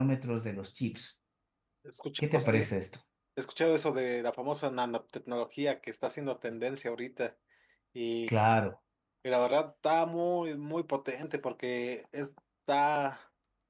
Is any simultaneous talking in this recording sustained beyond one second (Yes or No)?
No